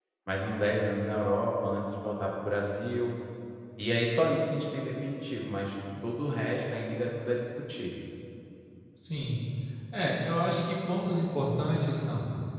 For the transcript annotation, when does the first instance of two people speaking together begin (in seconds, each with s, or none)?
none